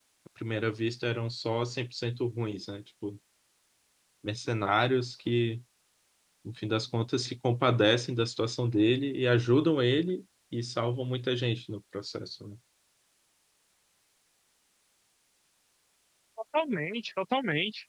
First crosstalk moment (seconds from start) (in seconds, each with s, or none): none